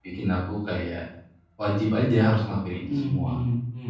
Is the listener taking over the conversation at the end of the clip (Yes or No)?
Yes